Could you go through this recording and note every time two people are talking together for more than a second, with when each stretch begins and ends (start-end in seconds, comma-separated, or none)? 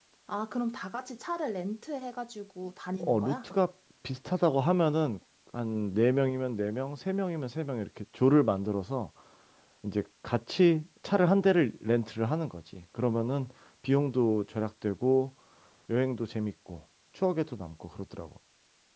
none